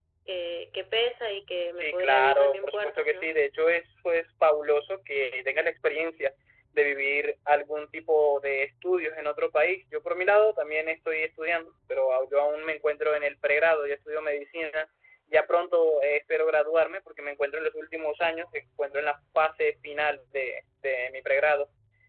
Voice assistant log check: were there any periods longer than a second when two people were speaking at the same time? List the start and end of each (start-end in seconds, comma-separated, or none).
1.8-3.3